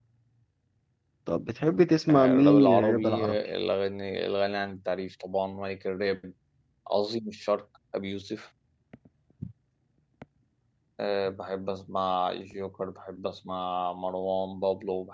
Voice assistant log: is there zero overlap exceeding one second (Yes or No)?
No